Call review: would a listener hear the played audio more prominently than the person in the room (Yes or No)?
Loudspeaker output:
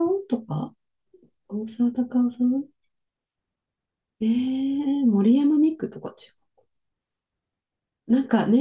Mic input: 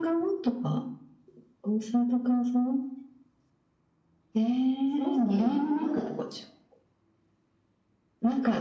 Yes